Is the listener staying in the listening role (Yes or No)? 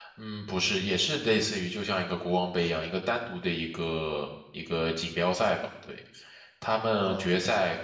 Yes